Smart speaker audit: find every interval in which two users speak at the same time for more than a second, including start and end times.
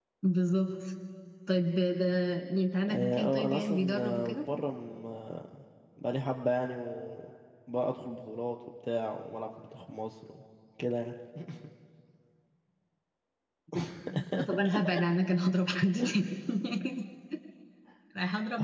2.8-4.3

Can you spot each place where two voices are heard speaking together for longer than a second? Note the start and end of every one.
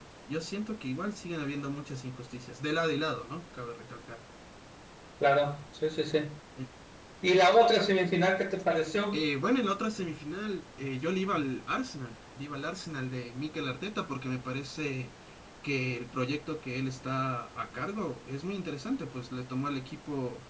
none

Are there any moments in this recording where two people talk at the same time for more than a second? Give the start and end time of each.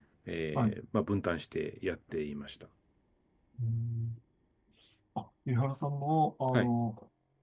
none

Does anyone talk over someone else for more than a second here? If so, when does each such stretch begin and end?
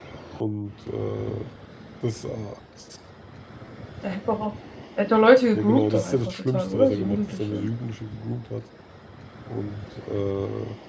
5.5-7.7

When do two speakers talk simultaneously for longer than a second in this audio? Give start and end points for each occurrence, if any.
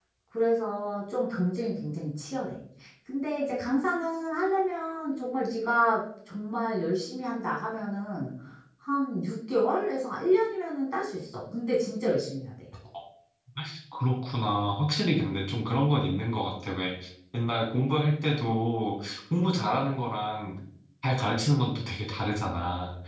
none

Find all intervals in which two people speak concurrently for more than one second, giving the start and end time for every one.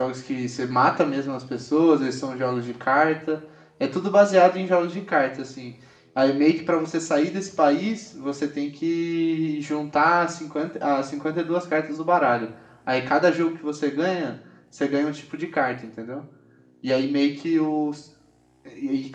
none

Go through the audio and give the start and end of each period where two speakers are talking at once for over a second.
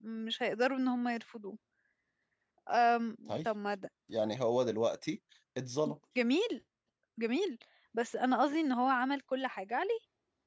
none

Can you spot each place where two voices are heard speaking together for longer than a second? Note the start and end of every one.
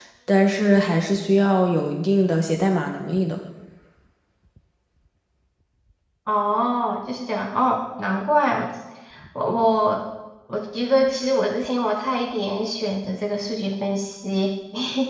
none

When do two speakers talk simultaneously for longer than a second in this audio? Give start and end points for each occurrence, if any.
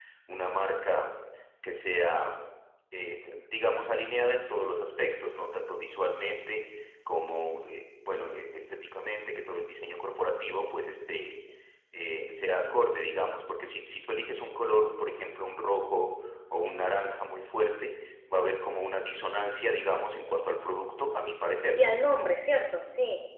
none

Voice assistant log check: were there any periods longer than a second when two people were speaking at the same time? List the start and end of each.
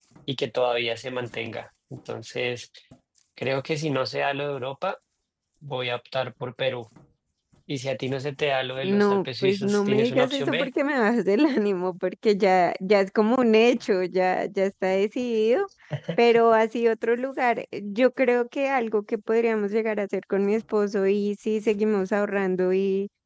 8.8-10.7

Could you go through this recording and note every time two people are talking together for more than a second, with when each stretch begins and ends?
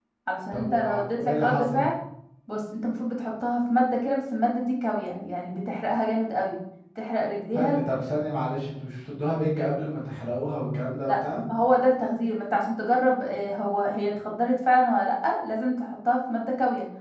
0.5-1.9

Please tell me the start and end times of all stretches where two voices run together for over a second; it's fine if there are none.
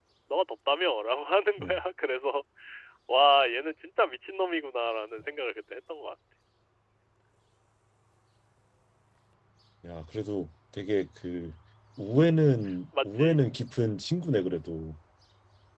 none

